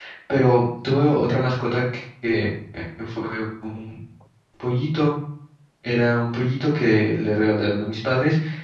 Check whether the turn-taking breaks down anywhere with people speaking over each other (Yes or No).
No